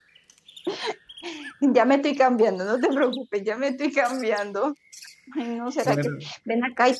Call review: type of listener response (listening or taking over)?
listening